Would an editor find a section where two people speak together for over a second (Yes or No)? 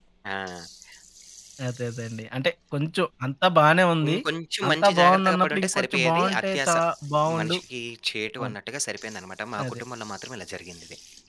Yes